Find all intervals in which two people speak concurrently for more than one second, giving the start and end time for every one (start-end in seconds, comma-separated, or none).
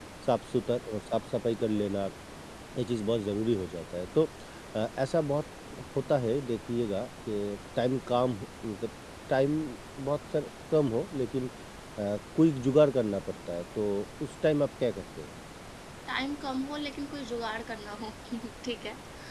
none